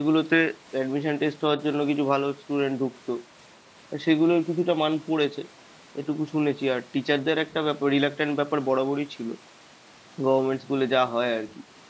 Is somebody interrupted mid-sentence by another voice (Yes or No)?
No